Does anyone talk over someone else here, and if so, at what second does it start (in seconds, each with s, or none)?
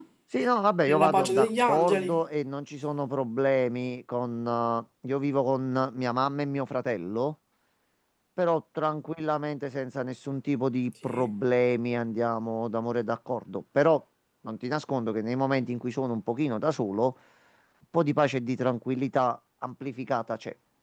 0.9 s